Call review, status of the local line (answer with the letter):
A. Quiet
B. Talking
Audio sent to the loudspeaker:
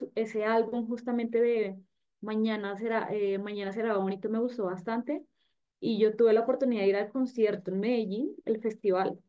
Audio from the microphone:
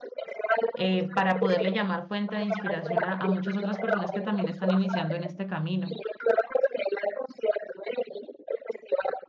B